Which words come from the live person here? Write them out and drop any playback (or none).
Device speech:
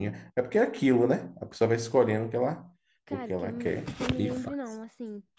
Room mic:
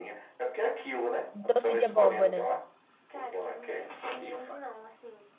Doce de abóbora.